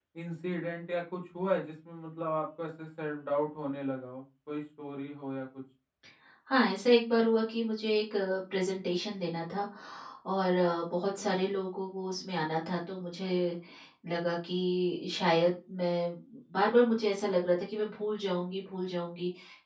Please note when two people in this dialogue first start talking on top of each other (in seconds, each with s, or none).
none